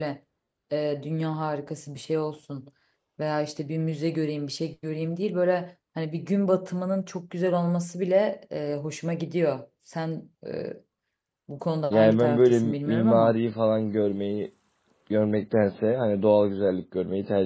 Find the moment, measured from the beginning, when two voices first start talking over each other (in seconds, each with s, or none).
11.9 s